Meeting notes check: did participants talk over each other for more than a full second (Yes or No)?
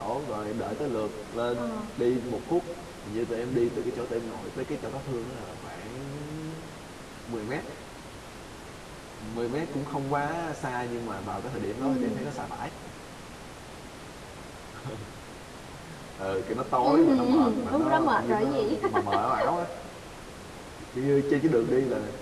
Yes